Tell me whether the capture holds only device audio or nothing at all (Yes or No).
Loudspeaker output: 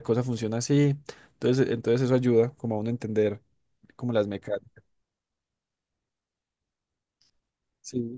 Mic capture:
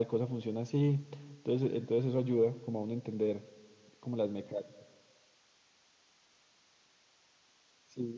Yes